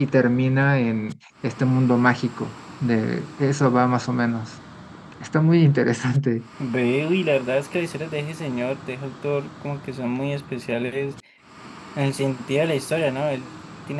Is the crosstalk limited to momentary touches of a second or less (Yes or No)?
Yes